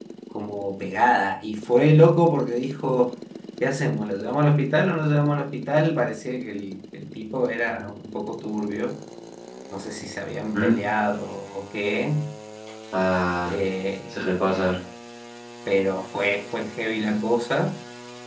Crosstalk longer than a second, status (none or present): none